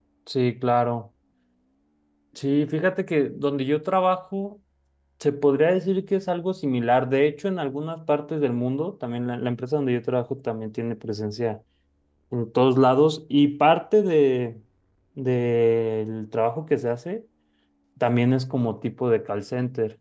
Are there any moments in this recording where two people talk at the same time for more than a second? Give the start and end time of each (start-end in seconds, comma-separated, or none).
none